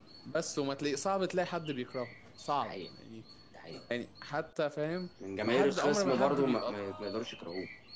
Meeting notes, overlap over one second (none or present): present